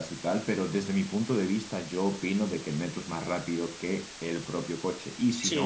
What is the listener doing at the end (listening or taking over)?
taking over